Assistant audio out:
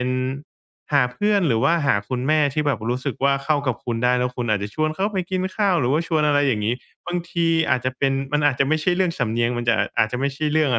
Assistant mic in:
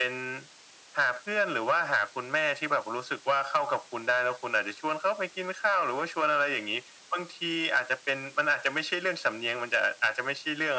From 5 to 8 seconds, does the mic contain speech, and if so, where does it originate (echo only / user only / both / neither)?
echo only